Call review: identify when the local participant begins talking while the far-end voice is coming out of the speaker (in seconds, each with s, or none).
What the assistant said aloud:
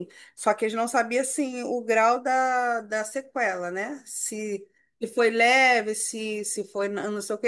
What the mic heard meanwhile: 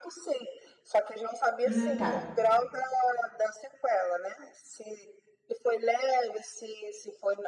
1.6 s